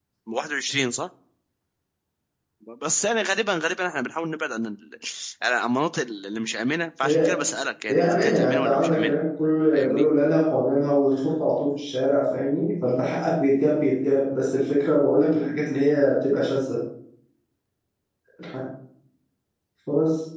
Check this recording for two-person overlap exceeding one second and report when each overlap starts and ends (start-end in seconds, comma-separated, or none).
7.9-9.2